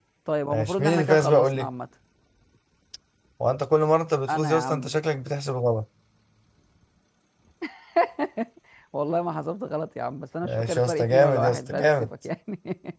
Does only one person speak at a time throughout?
No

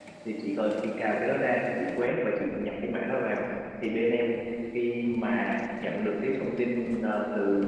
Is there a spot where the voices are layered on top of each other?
No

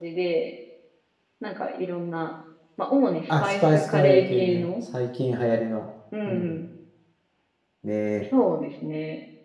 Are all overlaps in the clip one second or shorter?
No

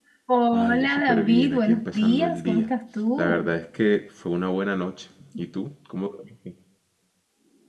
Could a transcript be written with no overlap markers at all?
No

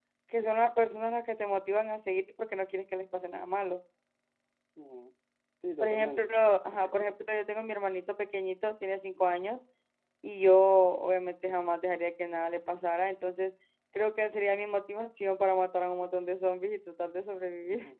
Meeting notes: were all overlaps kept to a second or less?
Yes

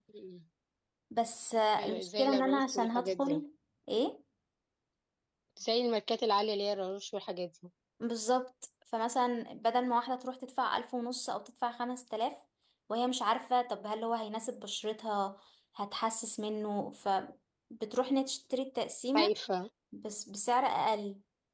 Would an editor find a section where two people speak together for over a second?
Yes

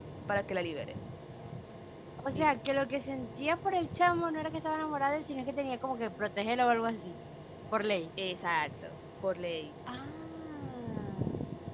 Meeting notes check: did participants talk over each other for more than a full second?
No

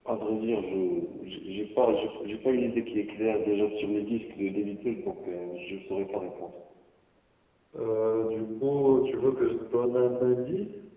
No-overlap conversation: Yes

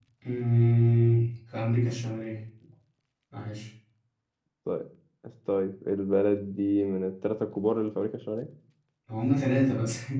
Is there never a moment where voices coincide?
Yes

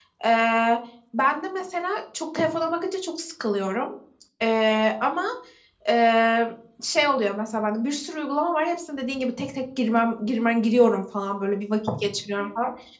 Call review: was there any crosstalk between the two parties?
No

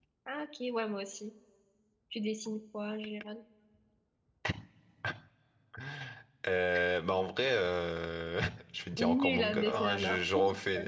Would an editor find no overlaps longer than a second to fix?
No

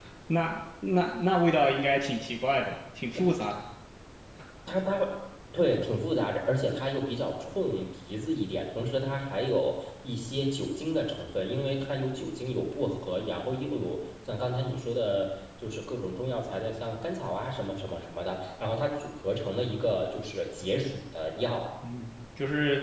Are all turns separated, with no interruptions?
Yes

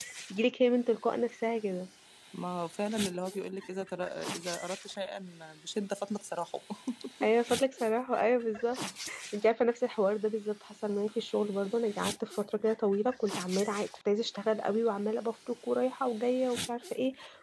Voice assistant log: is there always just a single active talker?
Yes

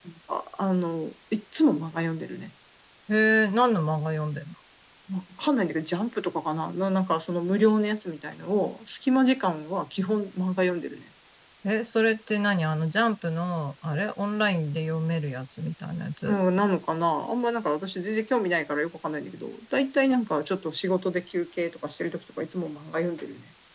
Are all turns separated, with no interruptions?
Yes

